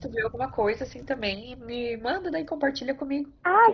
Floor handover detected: Yes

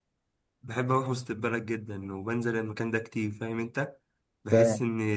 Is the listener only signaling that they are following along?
Yes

